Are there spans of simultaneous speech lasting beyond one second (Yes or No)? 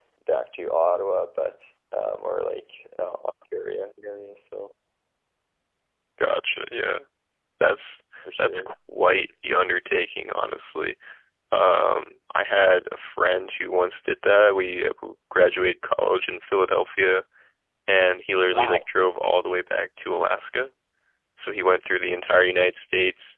No